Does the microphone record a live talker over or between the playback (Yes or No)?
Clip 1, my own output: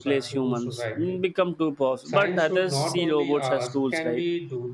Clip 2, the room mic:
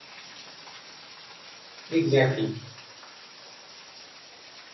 Yes